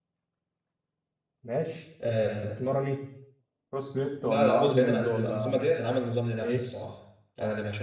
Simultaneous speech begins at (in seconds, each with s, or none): 4.2 s